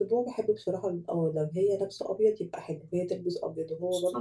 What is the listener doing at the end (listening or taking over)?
listening